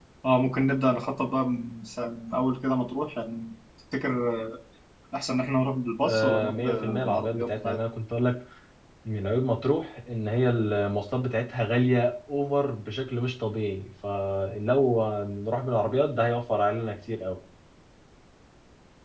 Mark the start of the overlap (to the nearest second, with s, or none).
6 s